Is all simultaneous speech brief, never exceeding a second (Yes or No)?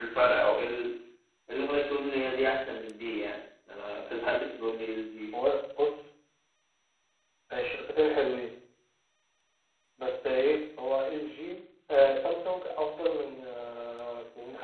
Yes